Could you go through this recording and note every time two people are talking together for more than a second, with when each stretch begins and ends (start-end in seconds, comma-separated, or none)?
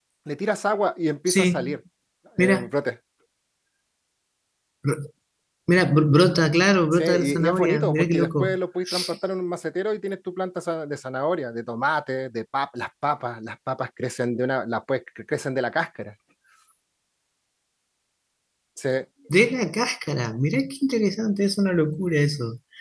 6.9-8.6